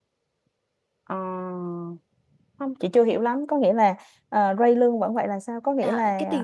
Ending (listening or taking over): taking over